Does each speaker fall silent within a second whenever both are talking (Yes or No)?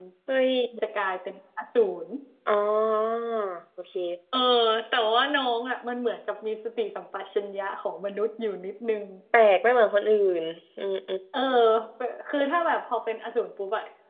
Yes